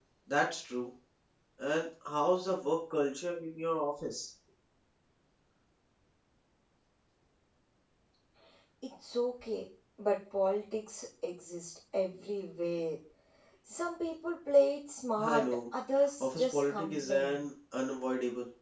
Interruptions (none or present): present